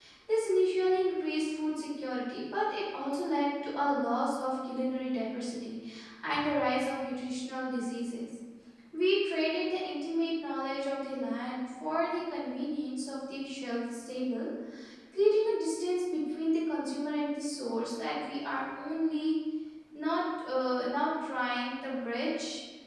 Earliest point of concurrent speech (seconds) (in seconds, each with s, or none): none